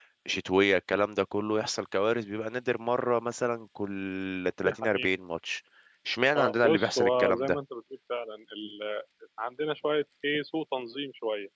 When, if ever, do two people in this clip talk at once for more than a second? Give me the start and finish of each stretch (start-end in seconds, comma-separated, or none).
6.4-7.6